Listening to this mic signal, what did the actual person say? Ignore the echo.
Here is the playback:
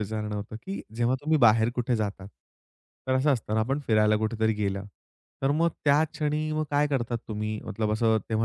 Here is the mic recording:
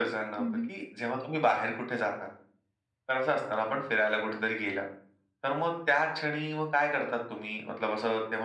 हं, हं.

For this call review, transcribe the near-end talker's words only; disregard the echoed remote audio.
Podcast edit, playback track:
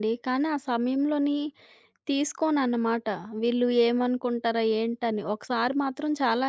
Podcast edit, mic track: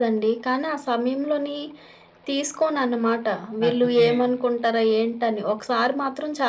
లేకపోతే

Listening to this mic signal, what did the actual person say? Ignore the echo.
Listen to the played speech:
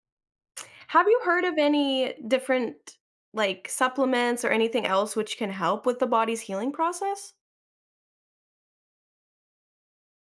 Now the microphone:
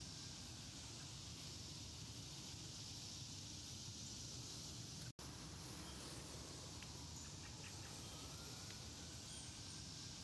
none

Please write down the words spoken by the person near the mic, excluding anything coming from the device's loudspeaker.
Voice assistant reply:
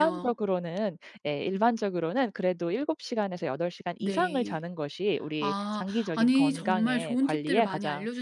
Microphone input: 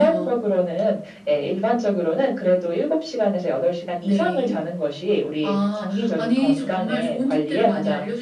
none

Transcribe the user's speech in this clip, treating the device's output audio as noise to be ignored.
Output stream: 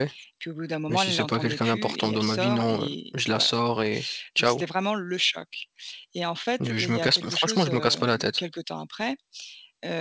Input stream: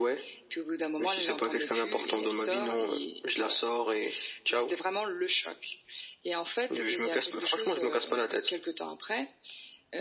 none

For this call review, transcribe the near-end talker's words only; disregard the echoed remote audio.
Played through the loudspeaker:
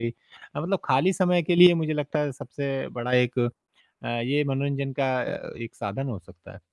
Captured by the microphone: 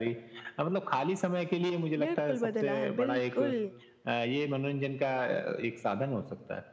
बिल्कुल बदला है, बिल्कुल।

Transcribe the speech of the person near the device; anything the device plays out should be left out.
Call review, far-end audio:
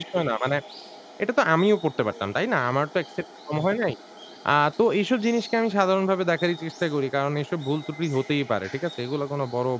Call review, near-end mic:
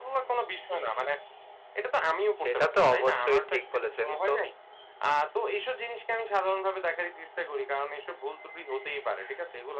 সেটা তো অবশ্যই ঠিক বলেছেন। তো

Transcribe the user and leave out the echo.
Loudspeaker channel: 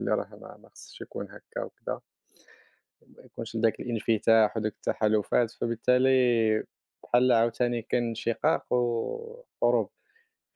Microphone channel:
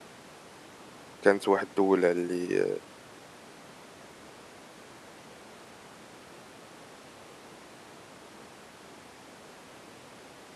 كانت واحد الدولة اللي

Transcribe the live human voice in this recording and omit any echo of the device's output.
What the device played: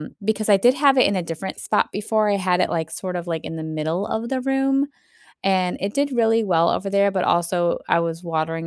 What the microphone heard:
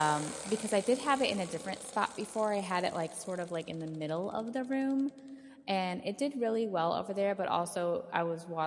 none

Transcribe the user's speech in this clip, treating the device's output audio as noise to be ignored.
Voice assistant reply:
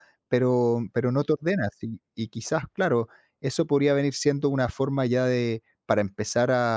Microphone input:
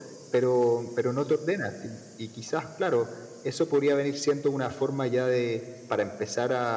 none

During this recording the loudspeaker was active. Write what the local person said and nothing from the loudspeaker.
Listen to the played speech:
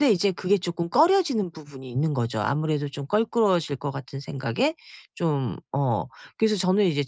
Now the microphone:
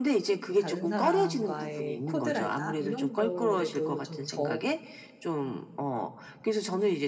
다른 사람과의 코드랄까? 이런 거에도 좀 저

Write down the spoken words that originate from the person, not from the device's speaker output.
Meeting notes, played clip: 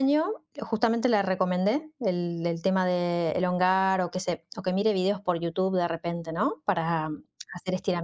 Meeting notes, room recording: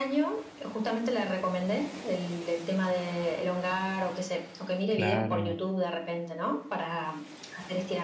claro,

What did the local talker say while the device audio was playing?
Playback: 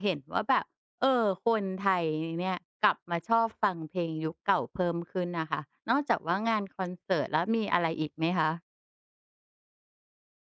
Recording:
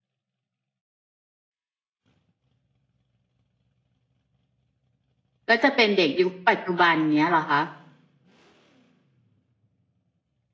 ก็จะเป็นเด็กยุคปัจจุบันเงี้ยเหรอคะ

